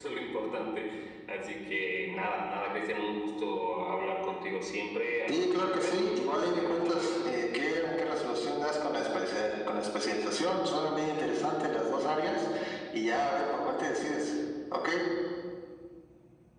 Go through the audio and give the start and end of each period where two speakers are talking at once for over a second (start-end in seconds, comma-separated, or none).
5.3-7.1